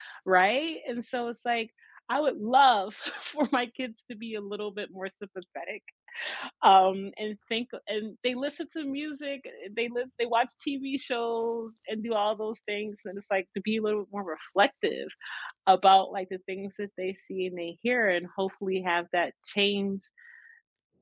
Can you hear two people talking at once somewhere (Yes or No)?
No